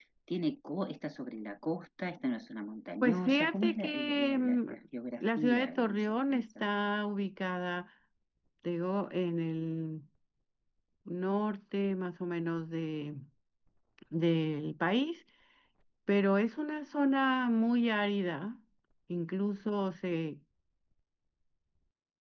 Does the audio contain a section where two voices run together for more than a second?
Yes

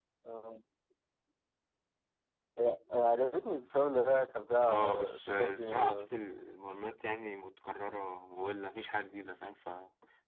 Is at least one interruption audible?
Yes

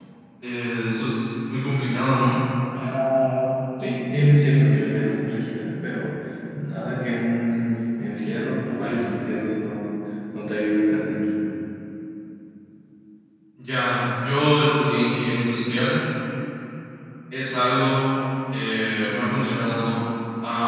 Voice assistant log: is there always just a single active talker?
Yes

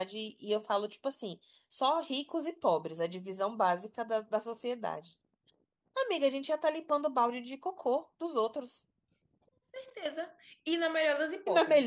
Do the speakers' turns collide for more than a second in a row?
No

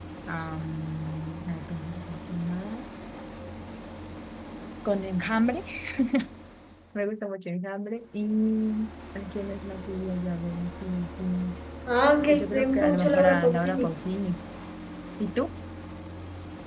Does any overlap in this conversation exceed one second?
Yes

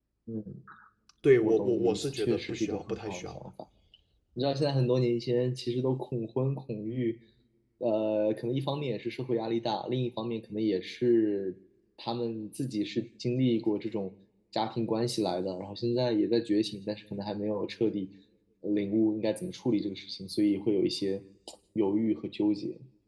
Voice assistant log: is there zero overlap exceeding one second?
No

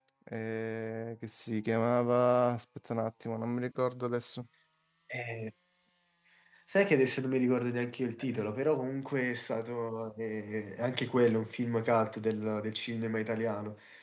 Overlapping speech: No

